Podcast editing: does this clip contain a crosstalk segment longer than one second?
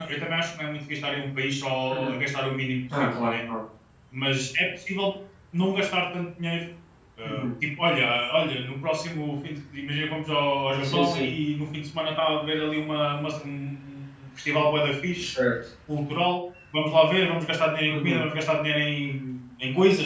No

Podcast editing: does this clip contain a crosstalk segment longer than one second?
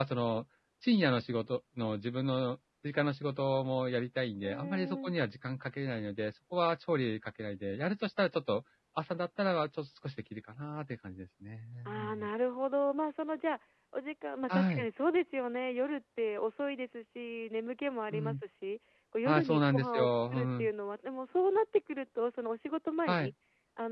Yes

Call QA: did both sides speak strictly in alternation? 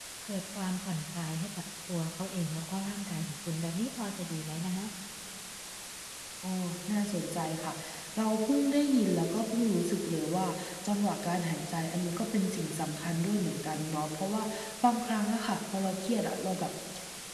Yes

